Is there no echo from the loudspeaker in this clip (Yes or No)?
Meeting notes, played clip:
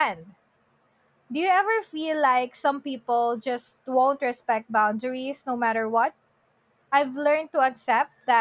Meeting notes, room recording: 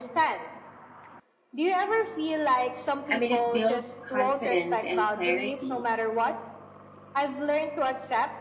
No